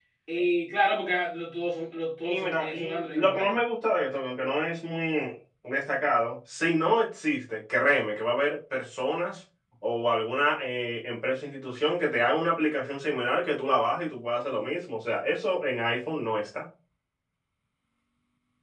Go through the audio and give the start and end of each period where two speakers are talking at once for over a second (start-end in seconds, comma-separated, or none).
2.2-3.6